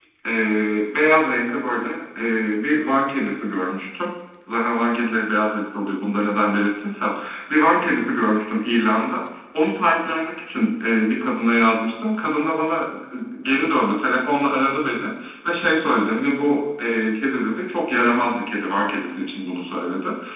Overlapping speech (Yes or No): No